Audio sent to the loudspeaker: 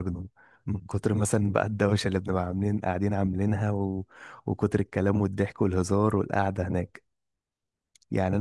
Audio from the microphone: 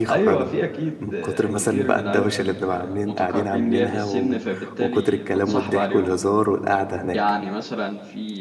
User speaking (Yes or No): Yes